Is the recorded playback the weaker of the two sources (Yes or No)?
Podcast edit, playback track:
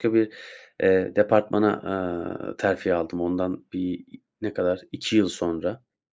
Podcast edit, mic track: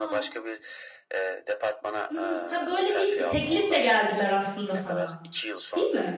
Yes